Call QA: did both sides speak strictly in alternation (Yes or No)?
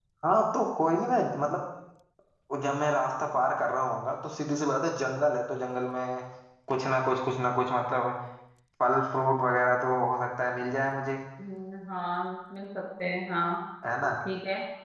Yes